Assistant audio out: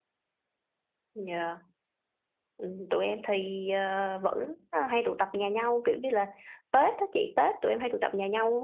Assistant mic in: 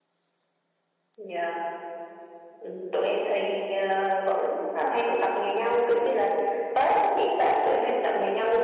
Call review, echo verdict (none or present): present